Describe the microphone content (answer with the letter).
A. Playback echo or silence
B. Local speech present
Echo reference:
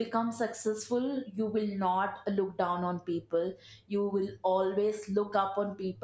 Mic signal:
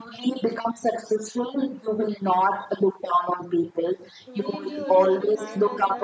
B